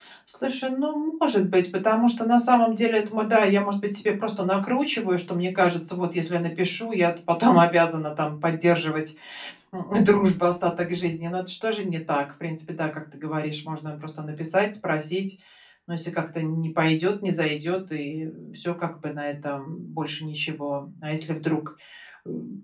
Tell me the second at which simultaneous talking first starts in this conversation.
none

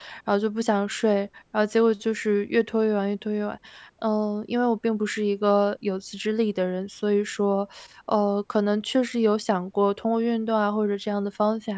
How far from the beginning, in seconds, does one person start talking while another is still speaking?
none

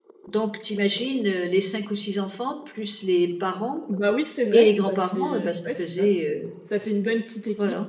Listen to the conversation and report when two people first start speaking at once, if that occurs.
4.5 s

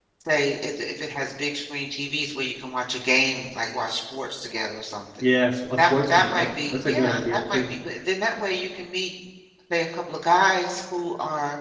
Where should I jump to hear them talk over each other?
5.8 s

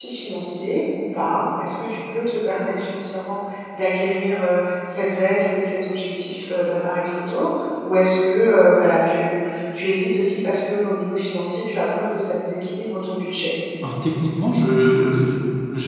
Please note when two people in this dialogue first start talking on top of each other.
none

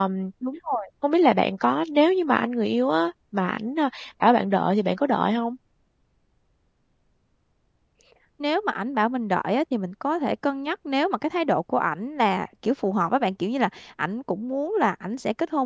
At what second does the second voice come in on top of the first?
none

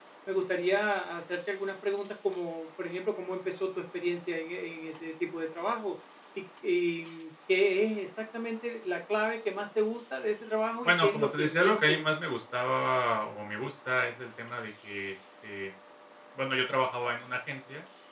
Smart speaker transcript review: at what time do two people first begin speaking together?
10.8 s

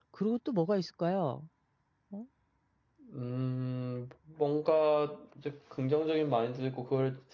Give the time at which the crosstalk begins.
none

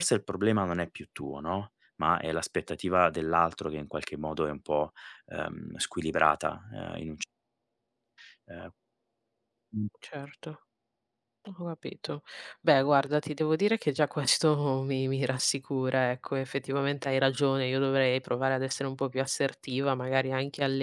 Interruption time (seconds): none

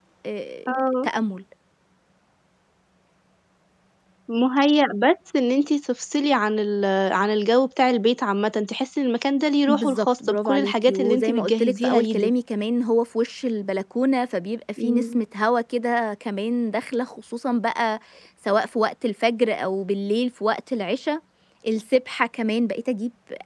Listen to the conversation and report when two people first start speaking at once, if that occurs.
9.7 s

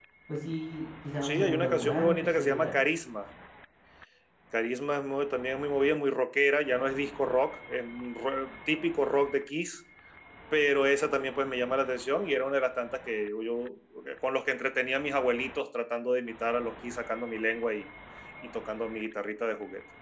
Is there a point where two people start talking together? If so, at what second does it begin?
1.2 s

